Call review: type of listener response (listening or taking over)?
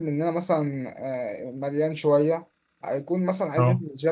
listening